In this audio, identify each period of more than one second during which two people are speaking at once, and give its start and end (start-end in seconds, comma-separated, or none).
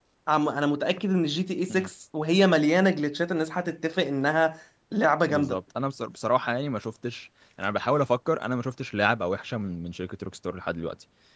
none